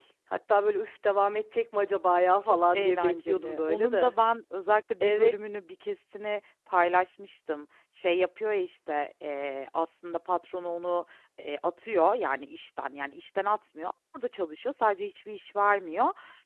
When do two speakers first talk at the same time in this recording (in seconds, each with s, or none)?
2.5 s